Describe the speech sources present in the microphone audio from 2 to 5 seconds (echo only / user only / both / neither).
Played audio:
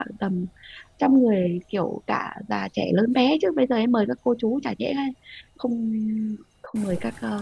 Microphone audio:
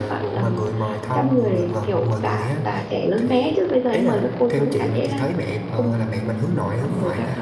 both